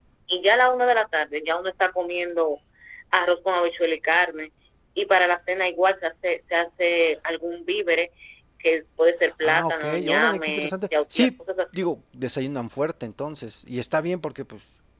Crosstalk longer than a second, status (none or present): present